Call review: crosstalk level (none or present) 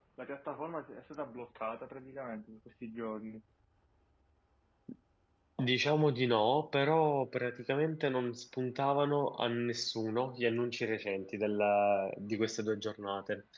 none